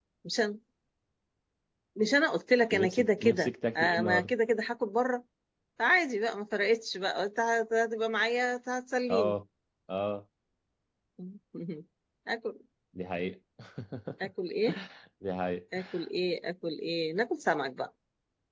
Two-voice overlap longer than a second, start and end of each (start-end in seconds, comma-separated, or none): 2.7-4.3